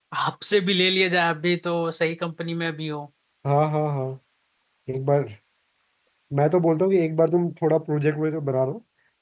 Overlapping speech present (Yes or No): No